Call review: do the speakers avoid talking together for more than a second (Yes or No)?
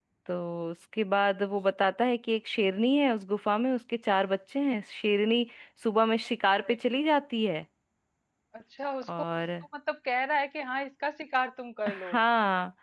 Yes